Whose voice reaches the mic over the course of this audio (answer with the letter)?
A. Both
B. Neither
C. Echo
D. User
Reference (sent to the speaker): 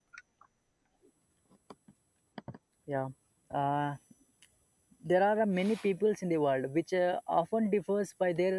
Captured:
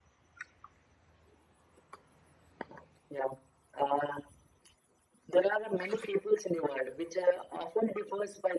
C